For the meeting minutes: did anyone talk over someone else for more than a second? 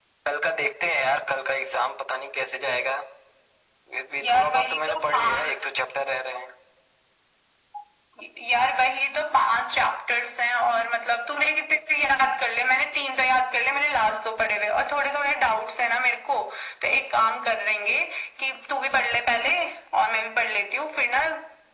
Yes, from 4.2 s

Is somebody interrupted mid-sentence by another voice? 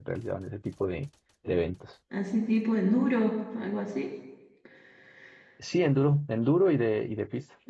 No

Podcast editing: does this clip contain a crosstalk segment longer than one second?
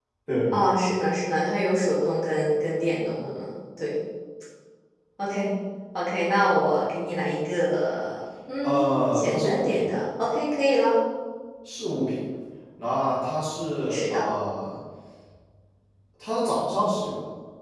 Yes, from 8.6 s

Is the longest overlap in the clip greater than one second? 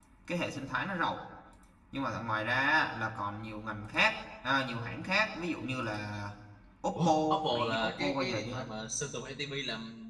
Yes, from 7.0 s

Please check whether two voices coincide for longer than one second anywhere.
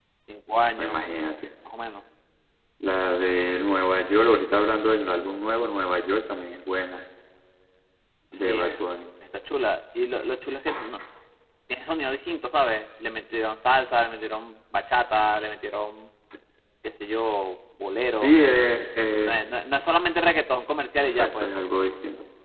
No

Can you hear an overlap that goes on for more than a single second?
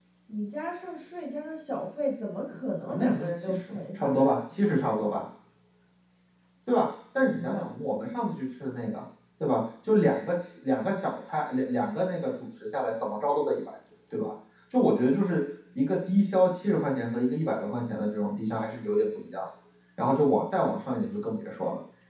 Yes, from 2.9 s

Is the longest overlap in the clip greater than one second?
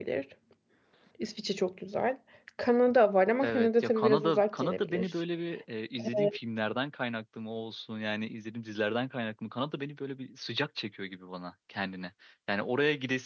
Yes, from 3.4 s

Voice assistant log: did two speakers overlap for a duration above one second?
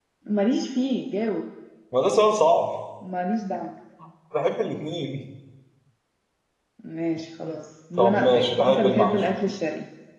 Yes, from 8.0 s

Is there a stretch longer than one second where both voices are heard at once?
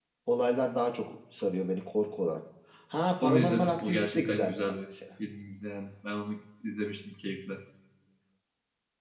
Yes, from 3.2 s

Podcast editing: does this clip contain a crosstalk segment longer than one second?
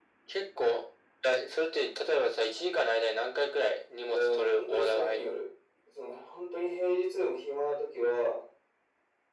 Yes, from 4.1 s

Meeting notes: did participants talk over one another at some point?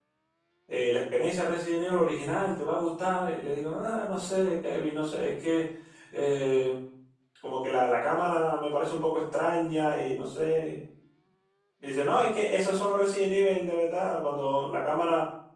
No

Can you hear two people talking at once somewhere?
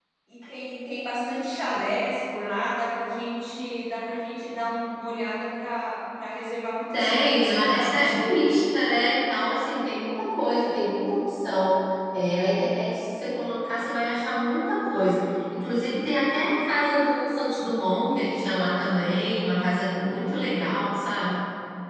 Yes, from 6.9 s

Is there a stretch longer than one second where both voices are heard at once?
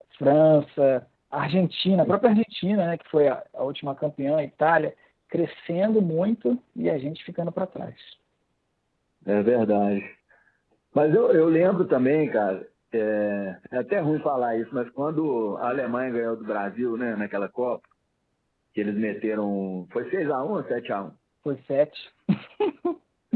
No

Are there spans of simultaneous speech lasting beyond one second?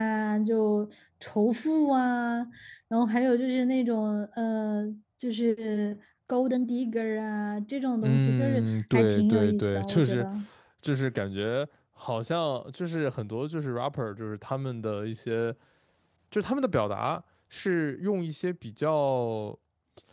Yes, from 8.0 s

